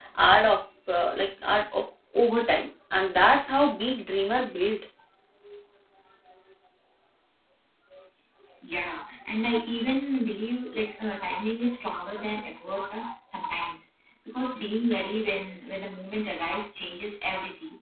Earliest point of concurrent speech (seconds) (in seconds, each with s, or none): none